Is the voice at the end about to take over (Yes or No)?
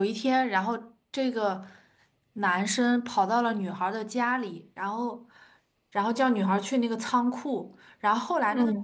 No